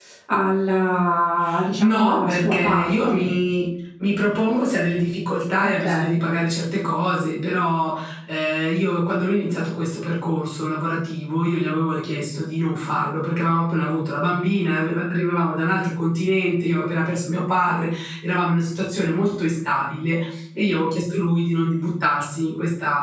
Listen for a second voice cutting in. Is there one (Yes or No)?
Yes